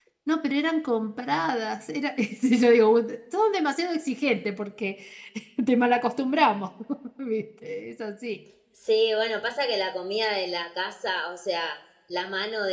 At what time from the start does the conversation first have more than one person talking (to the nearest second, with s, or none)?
none